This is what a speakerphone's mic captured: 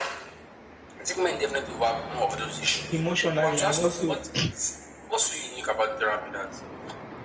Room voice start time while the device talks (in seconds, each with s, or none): 2.9 s